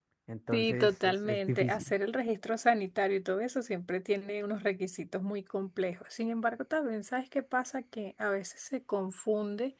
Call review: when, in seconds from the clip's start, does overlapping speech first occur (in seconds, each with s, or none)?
0.5 s